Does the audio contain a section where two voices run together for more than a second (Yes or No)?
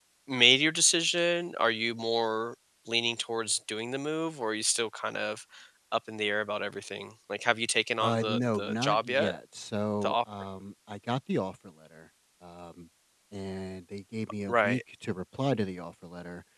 Yes